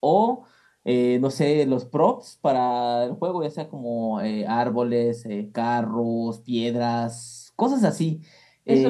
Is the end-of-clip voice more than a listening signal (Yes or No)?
Yes